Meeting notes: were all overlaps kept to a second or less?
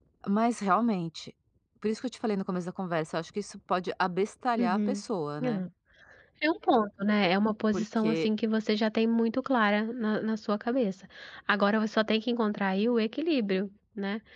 Yes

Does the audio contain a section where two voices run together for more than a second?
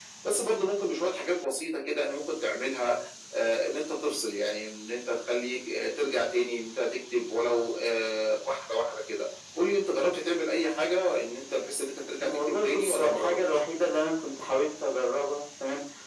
Yes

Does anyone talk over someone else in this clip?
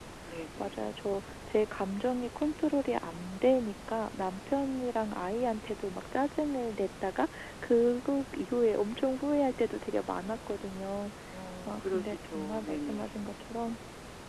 Yes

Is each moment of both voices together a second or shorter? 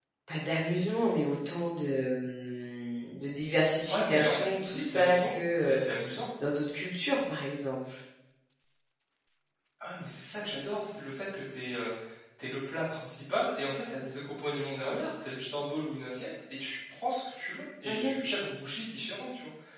No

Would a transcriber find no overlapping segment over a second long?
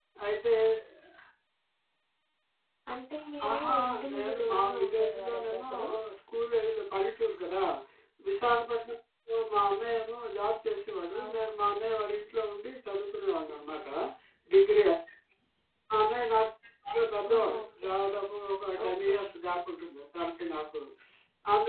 No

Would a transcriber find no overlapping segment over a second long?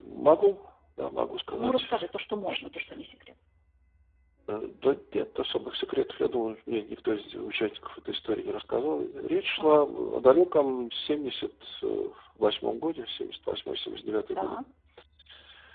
Yes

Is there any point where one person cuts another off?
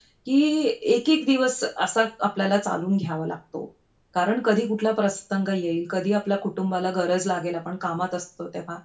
No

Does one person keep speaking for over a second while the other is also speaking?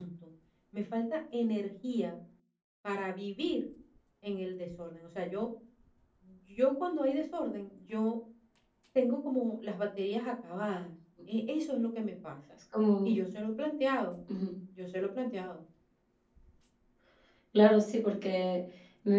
No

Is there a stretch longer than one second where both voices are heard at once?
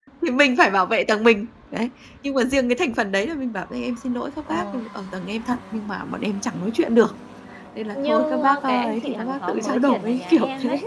Yes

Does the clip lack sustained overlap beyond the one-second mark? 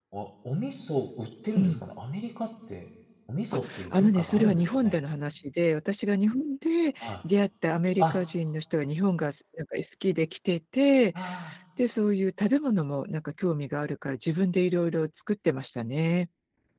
No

